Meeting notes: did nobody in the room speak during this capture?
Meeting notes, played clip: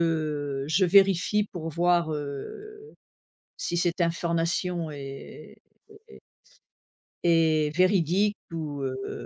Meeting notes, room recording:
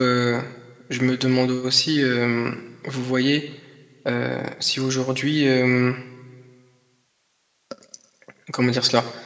No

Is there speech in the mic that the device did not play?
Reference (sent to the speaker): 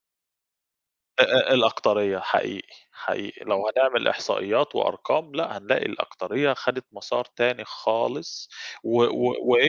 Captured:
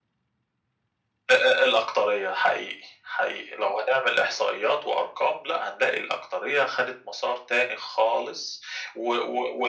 No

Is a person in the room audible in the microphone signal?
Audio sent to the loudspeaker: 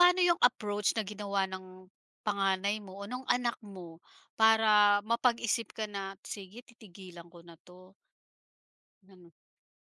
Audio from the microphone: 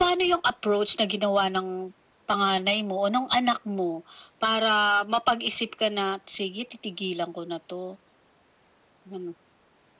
No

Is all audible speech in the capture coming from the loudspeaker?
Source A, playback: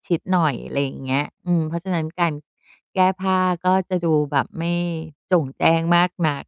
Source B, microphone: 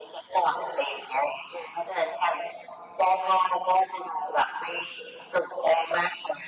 Yes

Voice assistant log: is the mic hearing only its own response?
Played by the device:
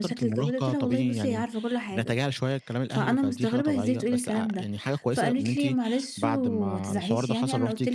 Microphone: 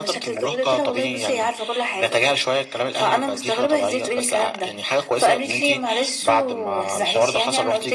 Yes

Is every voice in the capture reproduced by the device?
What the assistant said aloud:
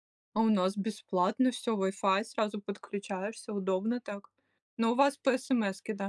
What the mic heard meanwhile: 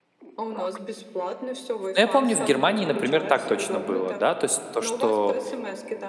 No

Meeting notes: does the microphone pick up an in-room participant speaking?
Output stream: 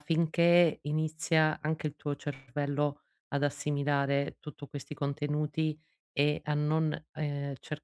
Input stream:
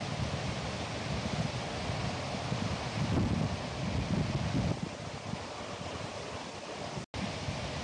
No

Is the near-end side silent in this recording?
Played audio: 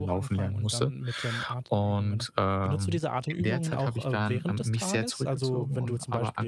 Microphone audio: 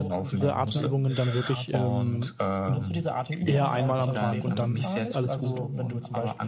No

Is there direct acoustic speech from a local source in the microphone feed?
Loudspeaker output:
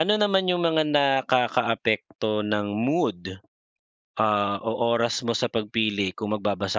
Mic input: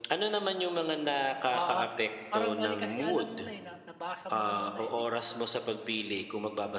Yes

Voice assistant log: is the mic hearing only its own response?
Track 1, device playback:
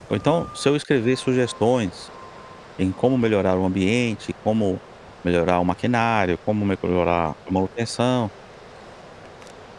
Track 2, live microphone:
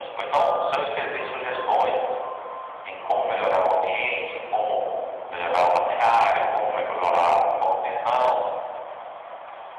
Yes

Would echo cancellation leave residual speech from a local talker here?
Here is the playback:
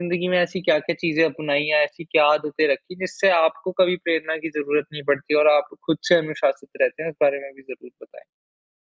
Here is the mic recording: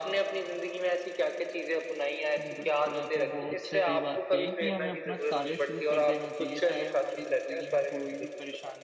Yes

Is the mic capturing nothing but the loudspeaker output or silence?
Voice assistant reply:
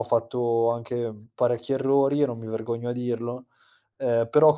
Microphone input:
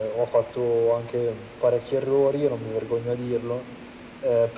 Yes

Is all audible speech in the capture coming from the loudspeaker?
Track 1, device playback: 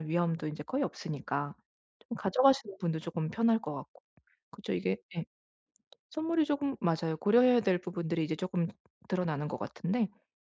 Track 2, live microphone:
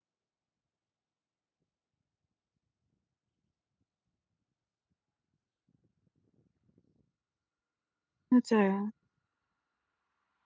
No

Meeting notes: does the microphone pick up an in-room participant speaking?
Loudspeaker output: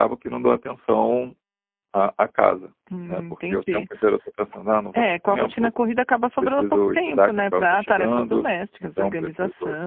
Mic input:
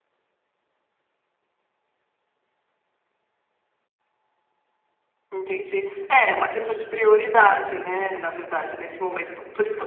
Yes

